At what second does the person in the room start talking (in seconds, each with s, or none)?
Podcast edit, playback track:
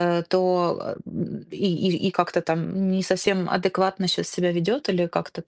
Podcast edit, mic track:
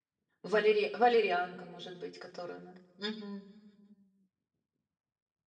0.4 s